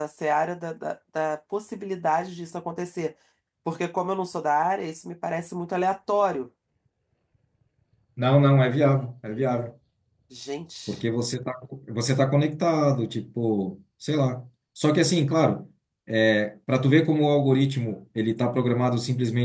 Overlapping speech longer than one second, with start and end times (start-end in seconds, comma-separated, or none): none